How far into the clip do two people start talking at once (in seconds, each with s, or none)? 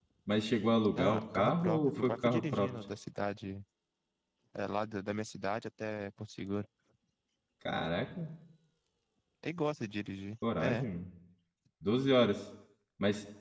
1.0 s